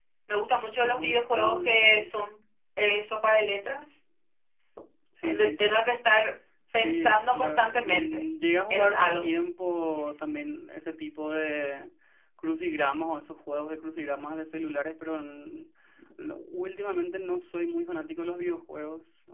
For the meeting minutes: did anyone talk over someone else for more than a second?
Yes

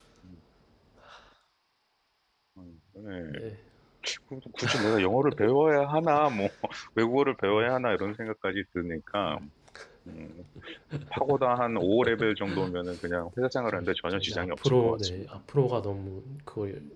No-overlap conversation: No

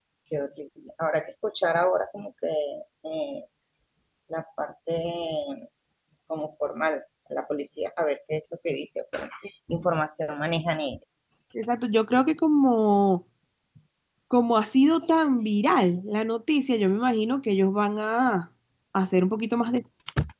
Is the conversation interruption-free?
Yes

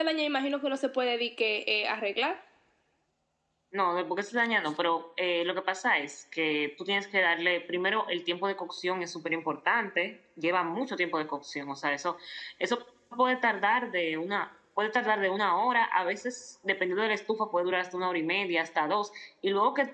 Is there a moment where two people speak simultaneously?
No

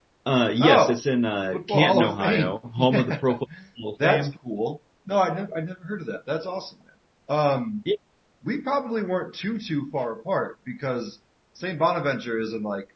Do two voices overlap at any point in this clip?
Yes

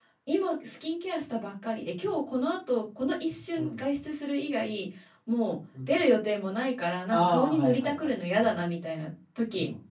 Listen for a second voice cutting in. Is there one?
Yes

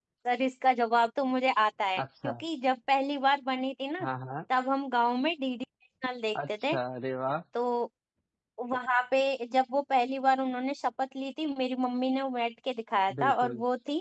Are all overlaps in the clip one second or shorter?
Yes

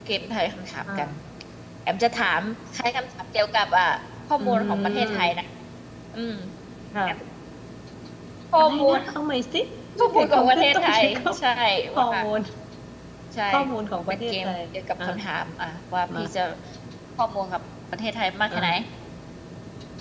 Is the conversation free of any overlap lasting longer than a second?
No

